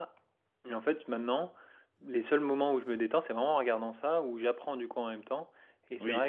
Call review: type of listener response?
listening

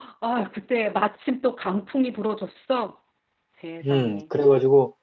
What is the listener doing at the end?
taking over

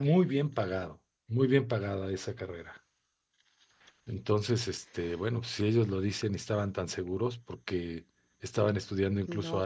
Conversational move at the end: listening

